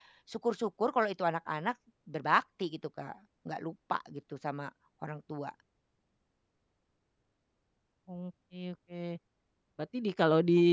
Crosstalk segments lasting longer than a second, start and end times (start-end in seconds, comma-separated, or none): none